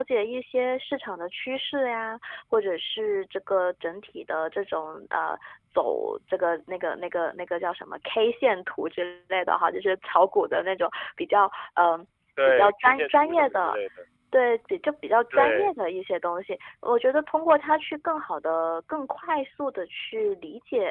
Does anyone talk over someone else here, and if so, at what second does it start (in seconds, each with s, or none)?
12.4 s